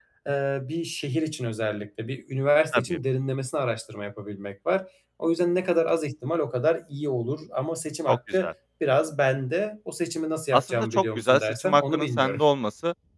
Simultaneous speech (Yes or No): Yes